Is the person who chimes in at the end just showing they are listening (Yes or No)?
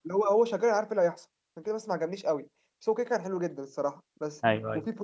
Yes